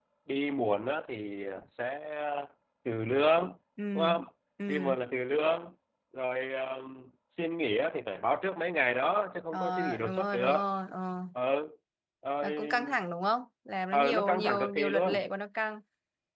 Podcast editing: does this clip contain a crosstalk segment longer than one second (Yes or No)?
Yes